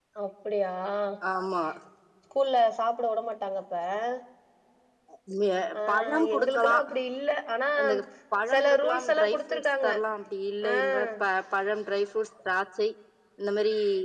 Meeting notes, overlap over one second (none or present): present